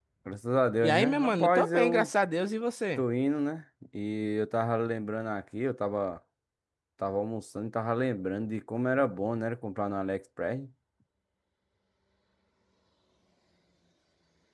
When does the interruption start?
1 s

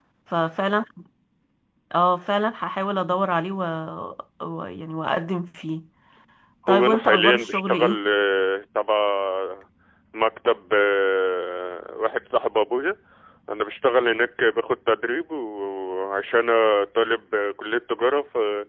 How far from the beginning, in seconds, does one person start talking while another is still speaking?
7 s

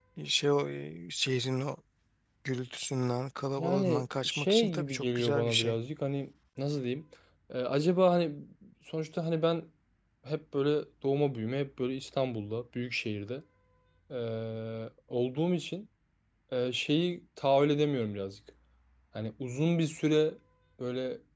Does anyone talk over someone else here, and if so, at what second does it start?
4 s

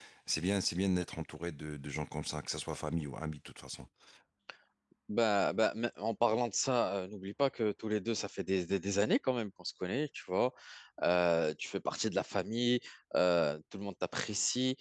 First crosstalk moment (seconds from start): none

